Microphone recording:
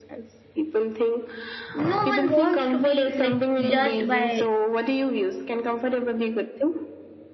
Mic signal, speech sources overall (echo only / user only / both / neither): both